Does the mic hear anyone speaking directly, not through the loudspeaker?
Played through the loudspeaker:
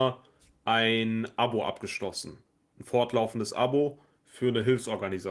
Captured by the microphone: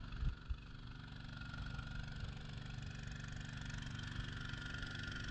No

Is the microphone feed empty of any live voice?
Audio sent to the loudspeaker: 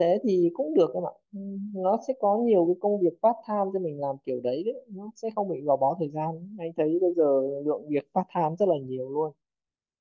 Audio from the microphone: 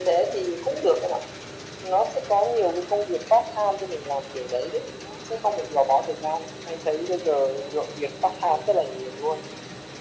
Yes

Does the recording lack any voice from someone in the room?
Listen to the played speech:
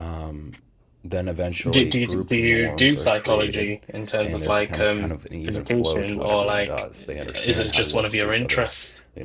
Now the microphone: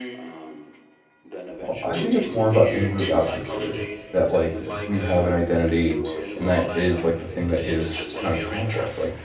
No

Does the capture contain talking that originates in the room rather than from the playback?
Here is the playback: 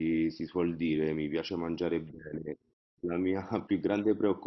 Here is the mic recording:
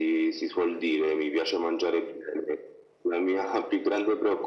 No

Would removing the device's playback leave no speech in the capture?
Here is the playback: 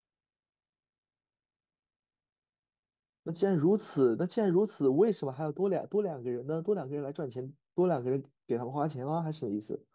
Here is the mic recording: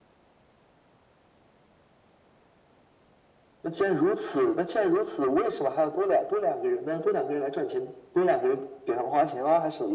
Yes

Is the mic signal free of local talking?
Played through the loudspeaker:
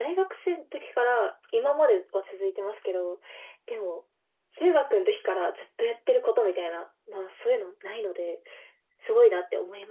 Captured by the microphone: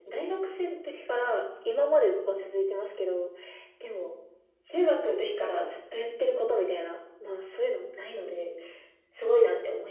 Yes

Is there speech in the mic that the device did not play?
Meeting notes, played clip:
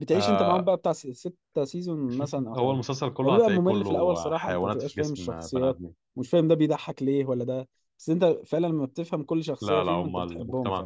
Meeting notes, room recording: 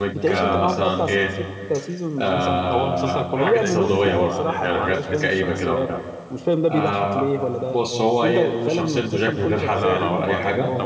Yes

